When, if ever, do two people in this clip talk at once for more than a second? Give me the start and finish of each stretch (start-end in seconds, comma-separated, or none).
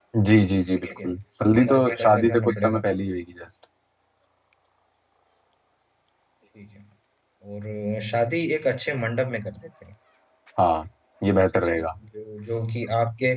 1.6-2.8